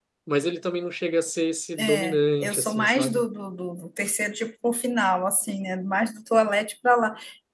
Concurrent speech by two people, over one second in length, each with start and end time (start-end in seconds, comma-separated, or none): 1.8-3.3